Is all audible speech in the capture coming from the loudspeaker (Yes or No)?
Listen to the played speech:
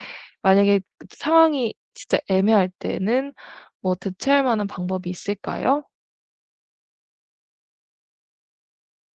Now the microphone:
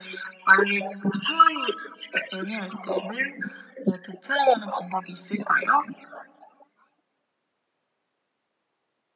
Yes